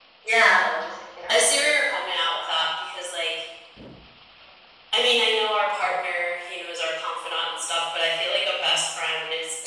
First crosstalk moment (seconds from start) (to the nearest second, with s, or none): 1 s